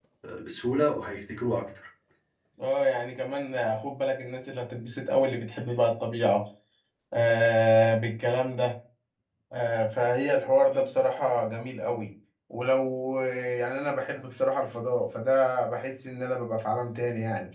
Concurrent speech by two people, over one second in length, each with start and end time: none

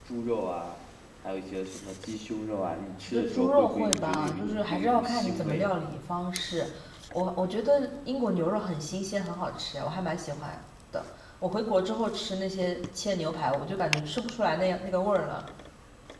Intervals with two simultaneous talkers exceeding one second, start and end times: 3.1-5.7

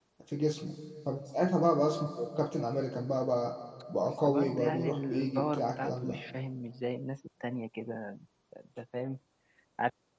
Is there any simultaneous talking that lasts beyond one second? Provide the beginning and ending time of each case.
4.2-6.2

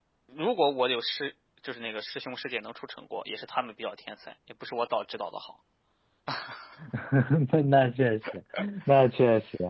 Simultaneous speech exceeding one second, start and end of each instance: none

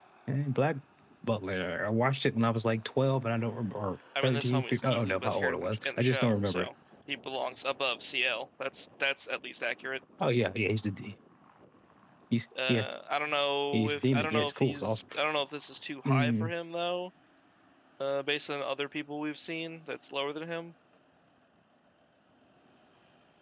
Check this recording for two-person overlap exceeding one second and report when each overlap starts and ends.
4.2-6.7, 13.7-15.0

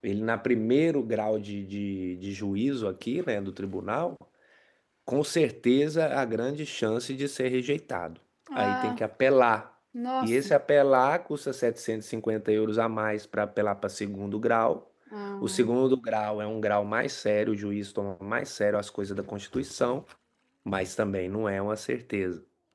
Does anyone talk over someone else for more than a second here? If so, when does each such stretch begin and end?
none

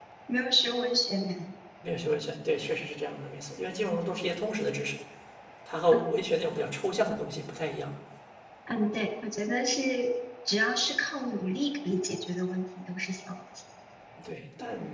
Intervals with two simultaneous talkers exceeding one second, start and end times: none

